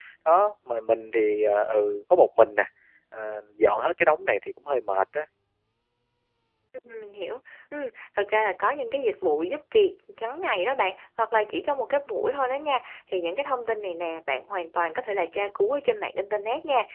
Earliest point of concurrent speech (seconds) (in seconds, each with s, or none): none